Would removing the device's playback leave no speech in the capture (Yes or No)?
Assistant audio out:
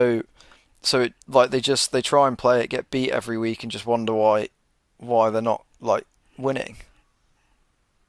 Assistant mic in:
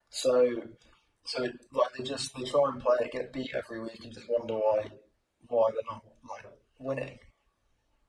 Yes